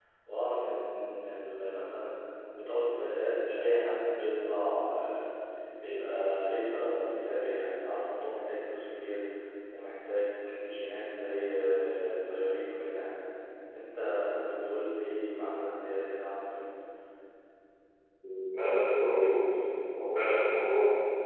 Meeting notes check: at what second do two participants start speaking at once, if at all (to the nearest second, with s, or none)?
none